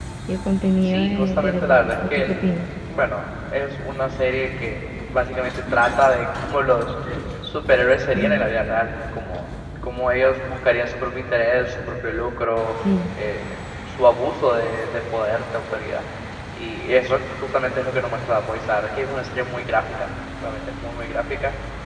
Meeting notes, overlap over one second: present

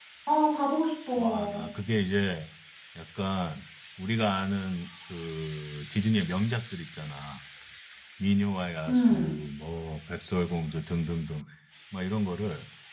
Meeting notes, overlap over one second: none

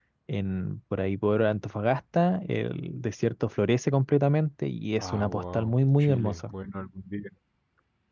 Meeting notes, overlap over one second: present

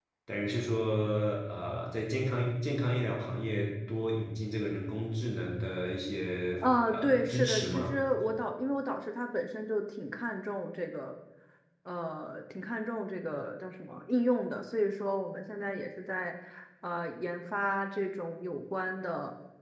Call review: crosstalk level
present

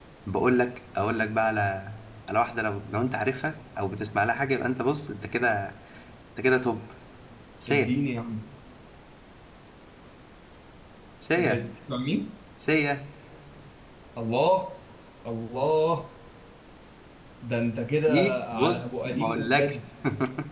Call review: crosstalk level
present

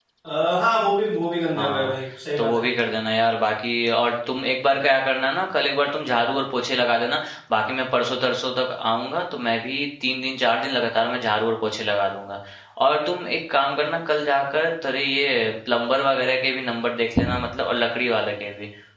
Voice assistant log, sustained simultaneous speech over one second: none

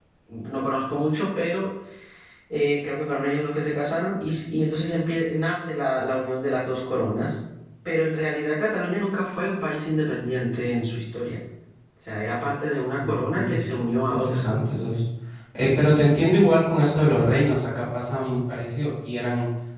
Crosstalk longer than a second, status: present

